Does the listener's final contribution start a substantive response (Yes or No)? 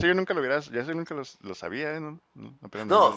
Yes